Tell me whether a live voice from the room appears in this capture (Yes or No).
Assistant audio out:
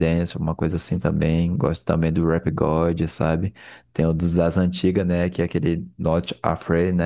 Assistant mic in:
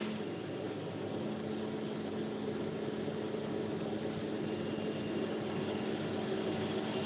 No